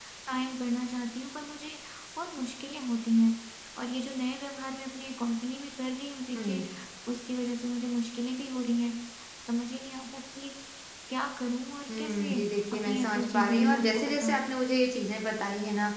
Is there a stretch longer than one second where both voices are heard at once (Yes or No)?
Yes